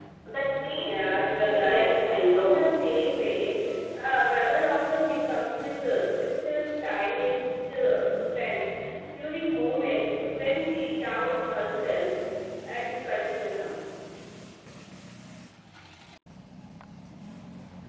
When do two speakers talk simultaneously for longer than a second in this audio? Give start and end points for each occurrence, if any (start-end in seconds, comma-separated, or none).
0.8-2.7